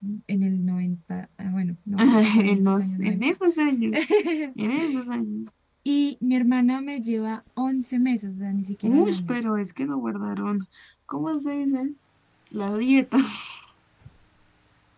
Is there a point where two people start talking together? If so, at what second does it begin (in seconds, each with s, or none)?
2.0 s